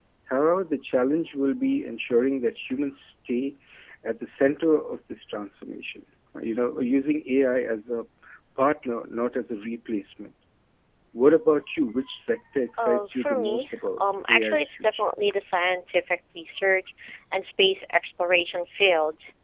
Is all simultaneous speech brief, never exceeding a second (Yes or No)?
No